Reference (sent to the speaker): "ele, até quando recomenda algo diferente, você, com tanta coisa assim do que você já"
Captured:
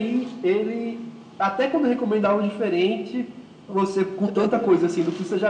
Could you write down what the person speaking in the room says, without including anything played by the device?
Que doideira.

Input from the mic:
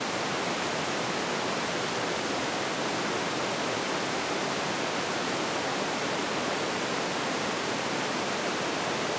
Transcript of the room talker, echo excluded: none

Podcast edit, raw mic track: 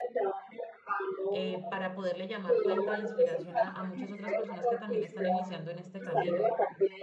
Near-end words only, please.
eh, para poderle llamar fuente de inspiración a a muchas otras personas que también están iniciando en este camino.

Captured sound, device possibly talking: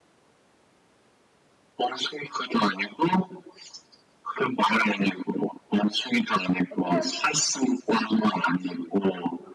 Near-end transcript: 아니야.

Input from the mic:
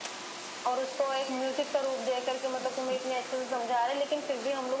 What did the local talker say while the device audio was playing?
none

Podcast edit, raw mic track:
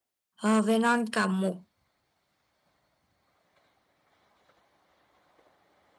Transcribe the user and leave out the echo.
uh, Elon cầm một

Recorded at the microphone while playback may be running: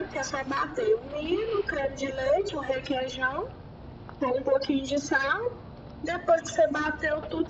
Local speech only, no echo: none

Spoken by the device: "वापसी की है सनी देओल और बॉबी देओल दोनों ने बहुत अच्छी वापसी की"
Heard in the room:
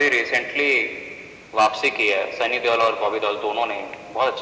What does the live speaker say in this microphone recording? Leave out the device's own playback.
none

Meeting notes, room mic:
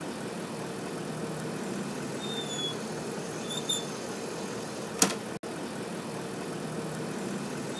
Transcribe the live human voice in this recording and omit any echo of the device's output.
none

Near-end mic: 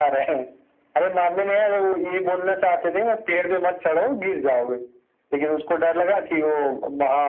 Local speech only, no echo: none

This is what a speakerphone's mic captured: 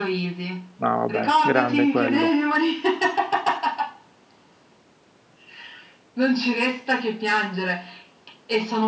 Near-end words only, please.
no, vabbè, grande quello.

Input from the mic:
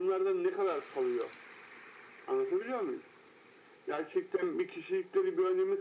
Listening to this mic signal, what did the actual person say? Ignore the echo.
none

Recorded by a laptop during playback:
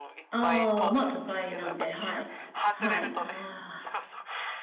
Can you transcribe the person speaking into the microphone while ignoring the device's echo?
ああ、まあ都会なんで、はい。はい。あ

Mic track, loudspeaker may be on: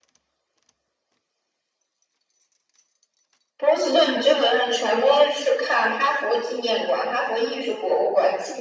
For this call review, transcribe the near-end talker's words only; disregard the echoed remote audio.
none

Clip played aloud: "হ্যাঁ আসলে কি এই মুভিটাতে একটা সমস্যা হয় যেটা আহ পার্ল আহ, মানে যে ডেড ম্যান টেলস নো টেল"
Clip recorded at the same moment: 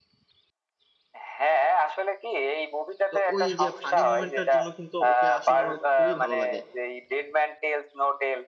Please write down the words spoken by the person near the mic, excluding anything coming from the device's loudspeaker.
তো ওই যে ফানি মোমেন্টটার জন্য কিন্তু ওকে আসলে আমার খুবই ভালো লাগে

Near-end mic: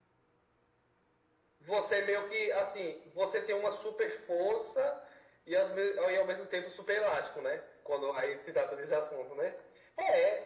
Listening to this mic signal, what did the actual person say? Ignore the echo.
none

